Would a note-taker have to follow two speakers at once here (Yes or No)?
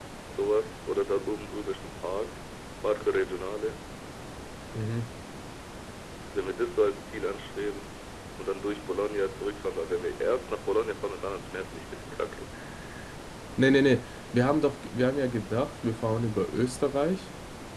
No